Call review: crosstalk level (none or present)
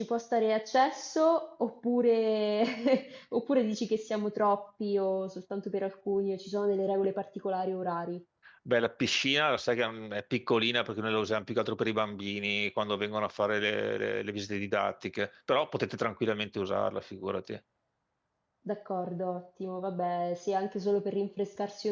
none